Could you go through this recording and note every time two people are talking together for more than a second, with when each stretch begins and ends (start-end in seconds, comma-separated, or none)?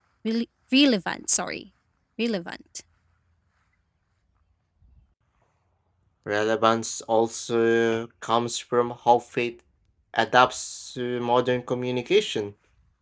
none